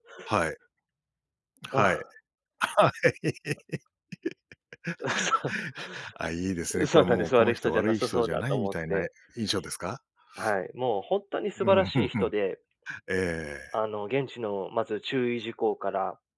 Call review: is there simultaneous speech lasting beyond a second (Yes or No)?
Yes